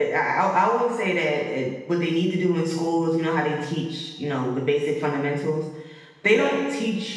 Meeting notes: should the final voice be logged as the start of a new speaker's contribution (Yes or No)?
No